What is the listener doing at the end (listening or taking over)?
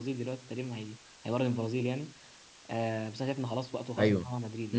listening